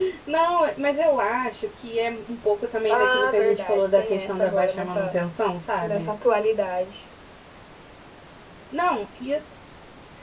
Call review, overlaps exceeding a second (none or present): present